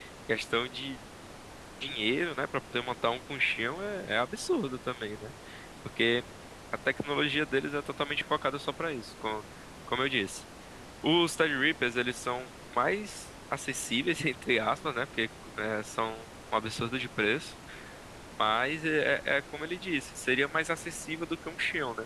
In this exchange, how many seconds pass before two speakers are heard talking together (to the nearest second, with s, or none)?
none